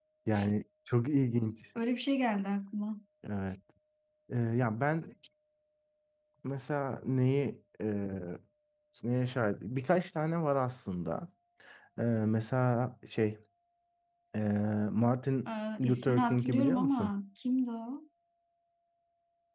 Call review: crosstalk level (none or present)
present